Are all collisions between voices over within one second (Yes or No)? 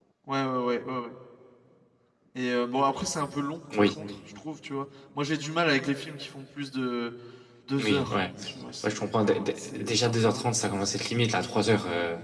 No